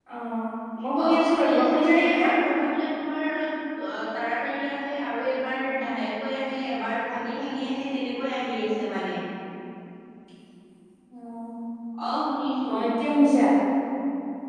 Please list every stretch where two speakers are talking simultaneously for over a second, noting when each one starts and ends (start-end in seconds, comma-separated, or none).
1.1-2.3